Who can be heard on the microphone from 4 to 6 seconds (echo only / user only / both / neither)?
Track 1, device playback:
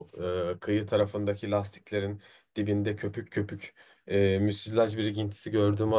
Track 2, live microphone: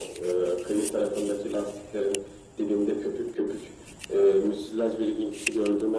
echo only